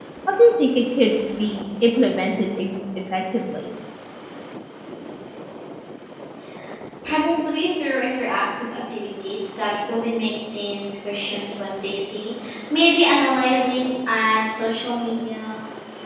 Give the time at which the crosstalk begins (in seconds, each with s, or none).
none